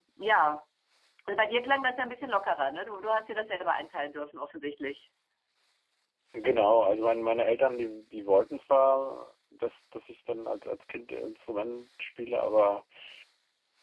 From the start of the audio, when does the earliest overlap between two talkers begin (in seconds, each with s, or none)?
none